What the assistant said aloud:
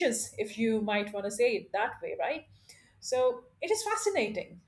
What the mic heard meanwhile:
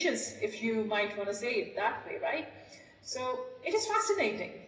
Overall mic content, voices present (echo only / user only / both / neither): echo only